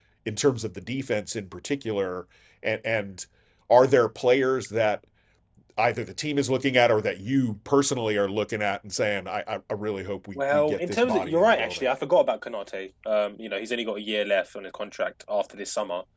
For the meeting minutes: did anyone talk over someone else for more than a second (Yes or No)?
Yes